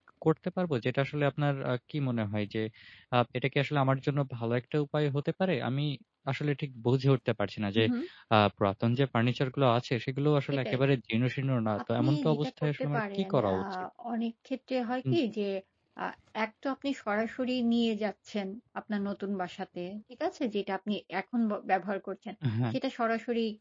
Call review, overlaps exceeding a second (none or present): present